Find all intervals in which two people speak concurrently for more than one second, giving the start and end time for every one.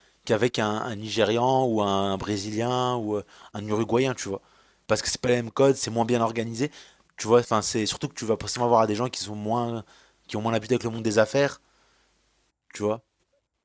none

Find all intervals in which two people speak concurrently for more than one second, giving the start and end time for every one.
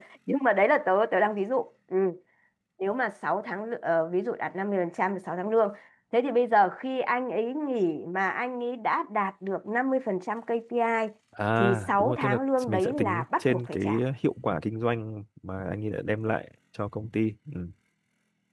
11.6-13.8

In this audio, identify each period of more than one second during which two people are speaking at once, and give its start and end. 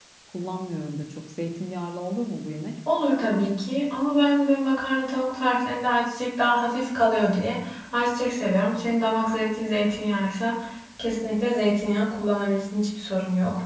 none

